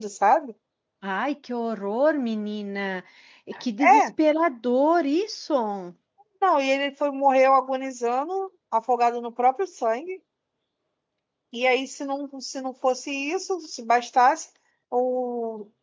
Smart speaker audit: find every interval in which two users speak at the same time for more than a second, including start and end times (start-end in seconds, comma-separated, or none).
none